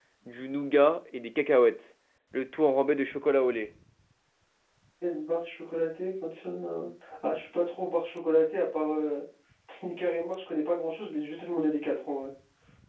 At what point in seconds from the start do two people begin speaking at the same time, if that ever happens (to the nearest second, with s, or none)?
none